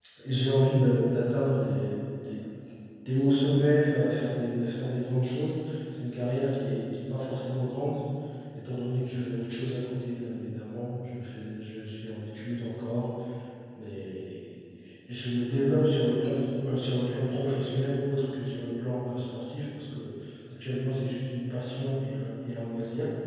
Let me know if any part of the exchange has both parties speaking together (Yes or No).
No